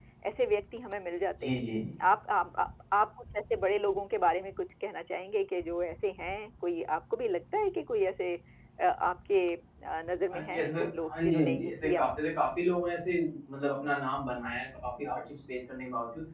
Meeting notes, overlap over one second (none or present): present